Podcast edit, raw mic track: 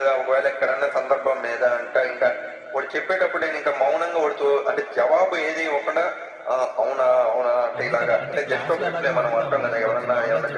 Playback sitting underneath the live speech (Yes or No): No